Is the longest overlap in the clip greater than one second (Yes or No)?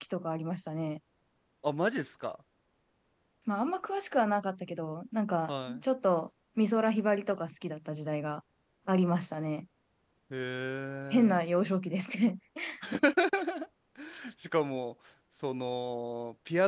No